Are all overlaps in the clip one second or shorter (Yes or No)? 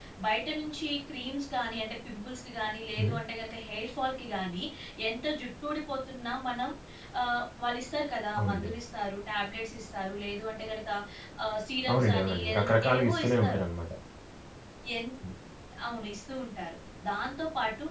No